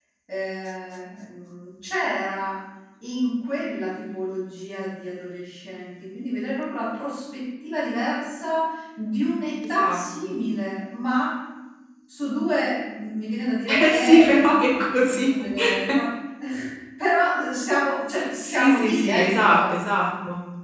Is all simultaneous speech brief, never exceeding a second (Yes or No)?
No